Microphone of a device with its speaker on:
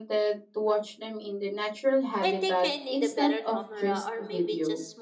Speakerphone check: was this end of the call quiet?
No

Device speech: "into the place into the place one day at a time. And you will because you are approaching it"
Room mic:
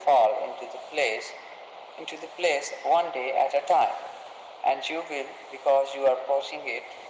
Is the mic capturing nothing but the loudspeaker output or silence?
Yes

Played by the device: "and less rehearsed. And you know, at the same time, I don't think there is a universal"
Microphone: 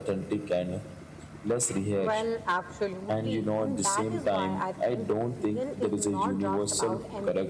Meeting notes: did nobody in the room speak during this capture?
No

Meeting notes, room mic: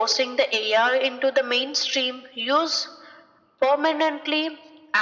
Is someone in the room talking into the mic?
No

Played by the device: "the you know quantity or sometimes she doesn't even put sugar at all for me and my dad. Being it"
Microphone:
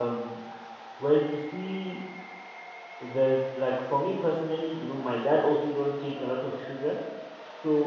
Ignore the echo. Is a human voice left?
Yes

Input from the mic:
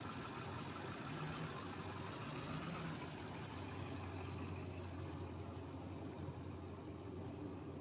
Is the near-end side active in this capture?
No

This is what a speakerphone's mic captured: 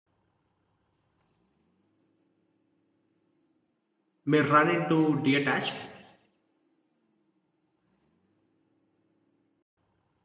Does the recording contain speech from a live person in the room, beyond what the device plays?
Yes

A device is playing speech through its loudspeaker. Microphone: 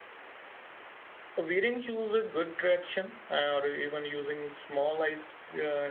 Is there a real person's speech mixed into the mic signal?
Yes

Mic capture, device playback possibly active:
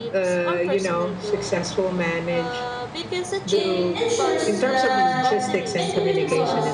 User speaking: Yes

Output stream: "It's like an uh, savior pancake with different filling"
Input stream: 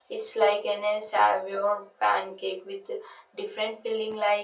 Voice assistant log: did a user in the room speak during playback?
No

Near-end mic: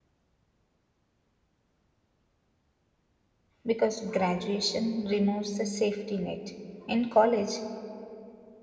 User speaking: Yes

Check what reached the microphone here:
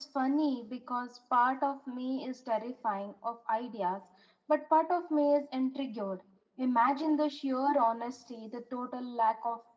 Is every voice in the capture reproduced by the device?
Yes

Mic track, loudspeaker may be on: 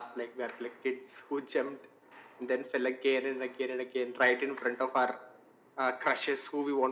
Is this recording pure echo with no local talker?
Yes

